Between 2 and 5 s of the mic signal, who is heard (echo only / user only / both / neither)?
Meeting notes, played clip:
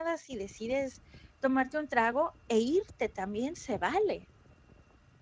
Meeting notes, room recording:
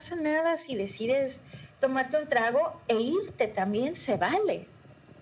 echo only